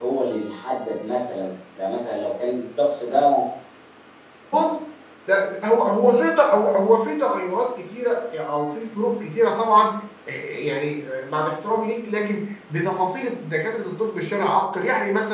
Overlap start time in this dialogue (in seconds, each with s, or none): none